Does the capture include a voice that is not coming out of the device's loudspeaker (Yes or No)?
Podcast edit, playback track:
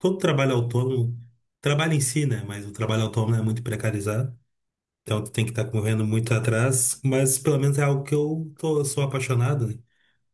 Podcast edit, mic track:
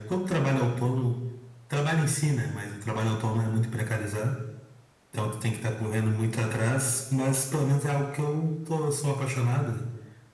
No